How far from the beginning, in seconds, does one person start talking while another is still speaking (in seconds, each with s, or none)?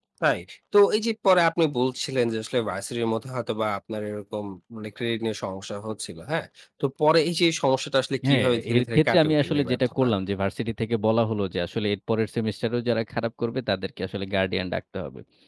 8.2 s